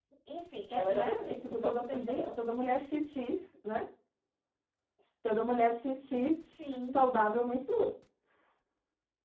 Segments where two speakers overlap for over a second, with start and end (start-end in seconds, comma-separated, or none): 0.7-2.3